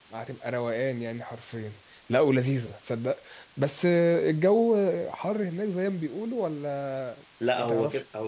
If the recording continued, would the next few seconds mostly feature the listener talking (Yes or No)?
Yes